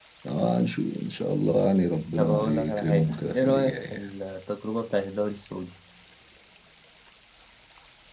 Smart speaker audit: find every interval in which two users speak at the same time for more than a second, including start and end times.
2.2-4.1

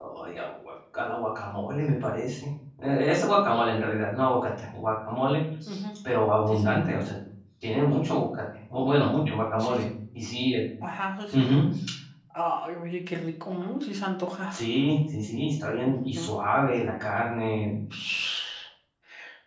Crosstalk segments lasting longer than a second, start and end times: none

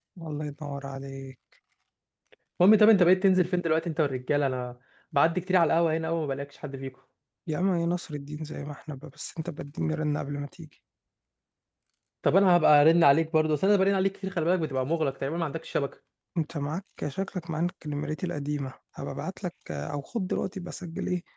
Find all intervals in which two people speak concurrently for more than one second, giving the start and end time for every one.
none

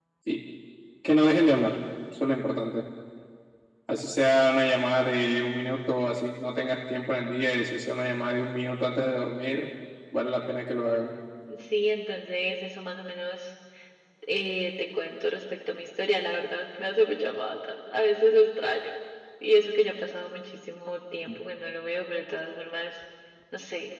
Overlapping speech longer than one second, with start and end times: none

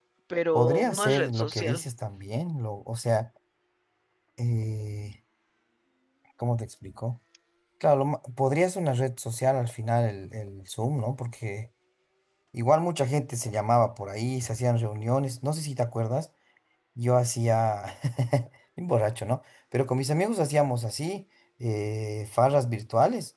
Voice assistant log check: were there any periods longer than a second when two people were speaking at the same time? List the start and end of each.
0.5-1.8

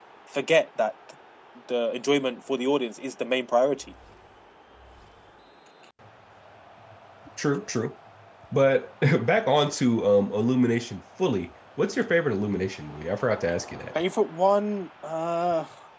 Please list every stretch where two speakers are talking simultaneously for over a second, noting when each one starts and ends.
none

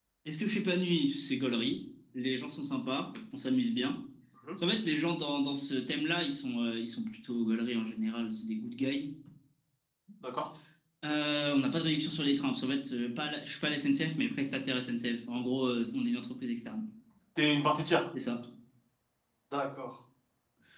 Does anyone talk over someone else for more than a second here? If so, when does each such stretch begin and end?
none

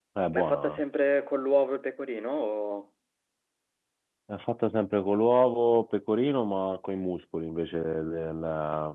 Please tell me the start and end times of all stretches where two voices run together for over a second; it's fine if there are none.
none

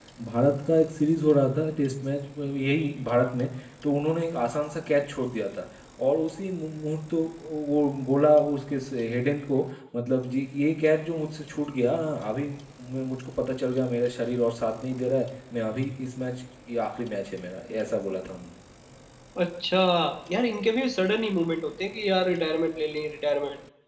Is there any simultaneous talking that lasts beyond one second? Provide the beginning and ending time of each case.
none

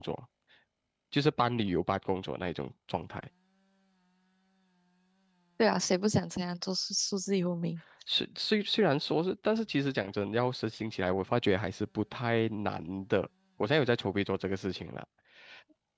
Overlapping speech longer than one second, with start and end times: none

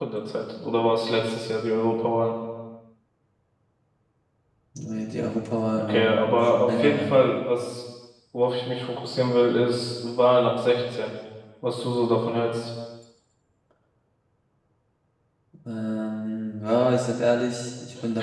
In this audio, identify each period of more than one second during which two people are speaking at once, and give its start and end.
5.8-7.1

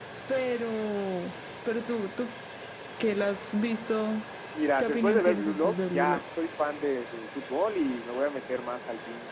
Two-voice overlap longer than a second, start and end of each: 4.8-6.2

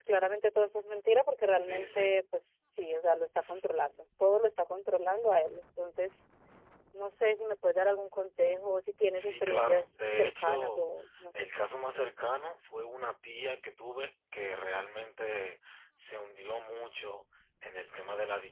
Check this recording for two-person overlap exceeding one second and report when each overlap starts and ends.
9.1-10.8

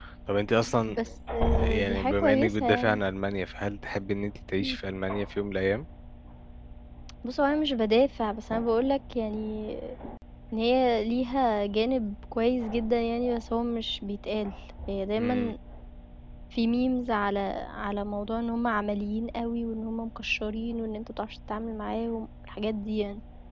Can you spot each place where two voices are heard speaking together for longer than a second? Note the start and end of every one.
1.6-3.0

